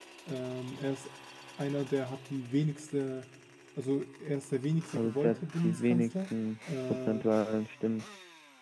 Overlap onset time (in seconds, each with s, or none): 4.9 s